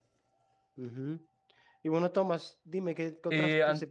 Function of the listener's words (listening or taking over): listening